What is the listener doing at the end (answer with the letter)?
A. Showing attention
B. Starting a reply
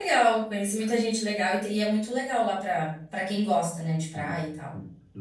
B